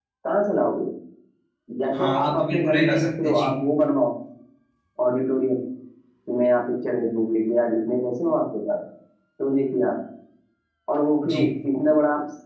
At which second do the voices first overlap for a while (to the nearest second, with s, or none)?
2 s